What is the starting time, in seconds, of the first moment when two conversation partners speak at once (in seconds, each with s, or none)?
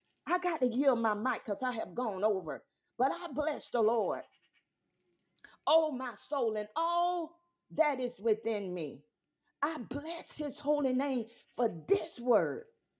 none